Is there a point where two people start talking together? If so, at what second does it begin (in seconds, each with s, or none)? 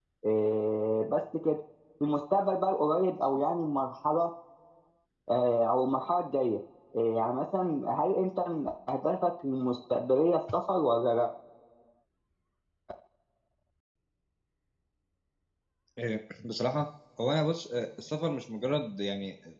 none